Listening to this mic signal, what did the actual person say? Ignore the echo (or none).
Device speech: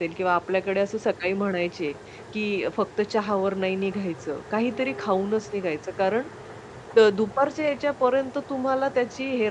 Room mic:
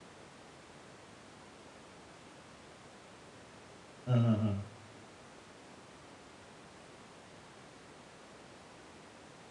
हं, हं, हं.